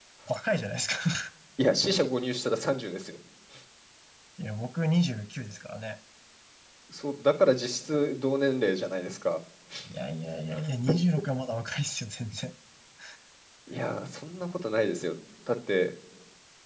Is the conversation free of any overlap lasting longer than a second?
Yes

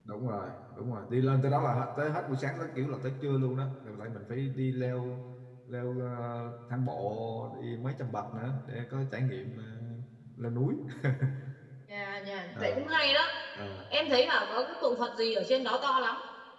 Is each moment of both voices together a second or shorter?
Yes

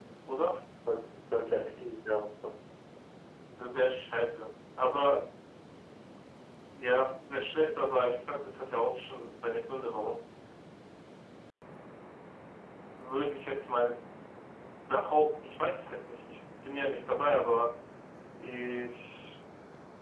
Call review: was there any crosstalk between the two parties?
No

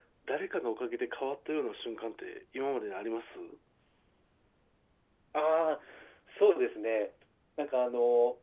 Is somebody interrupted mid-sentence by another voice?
No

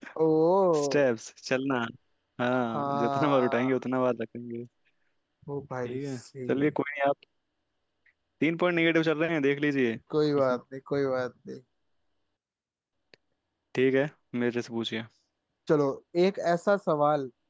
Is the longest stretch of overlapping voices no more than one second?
No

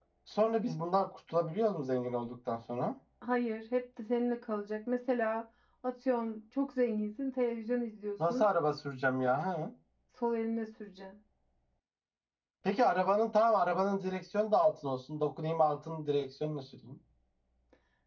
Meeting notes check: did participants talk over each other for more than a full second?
No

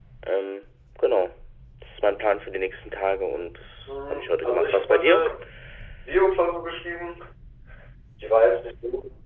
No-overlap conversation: No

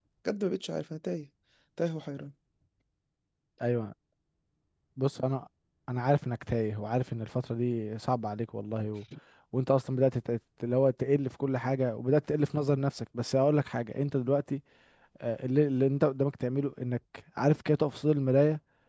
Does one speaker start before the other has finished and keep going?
No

